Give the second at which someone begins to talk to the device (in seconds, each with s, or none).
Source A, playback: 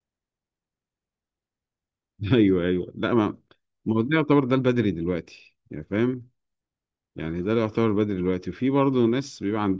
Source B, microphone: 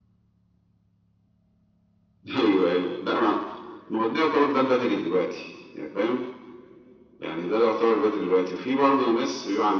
none